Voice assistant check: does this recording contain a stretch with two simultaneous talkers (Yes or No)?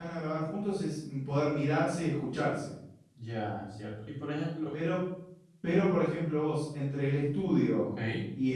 No